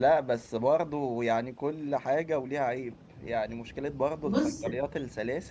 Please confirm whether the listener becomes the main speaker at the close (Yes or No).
No